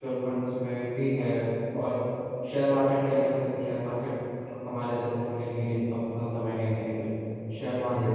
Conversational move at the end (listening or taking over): listening